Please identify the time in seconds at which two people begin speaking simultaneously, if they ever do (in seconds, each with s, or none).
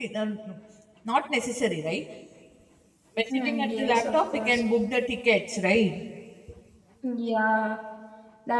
3.3 s